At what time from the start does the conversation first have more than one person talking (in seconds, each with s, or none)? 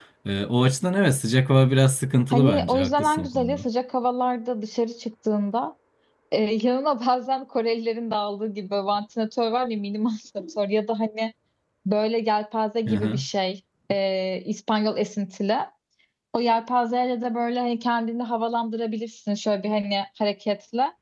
2.3 s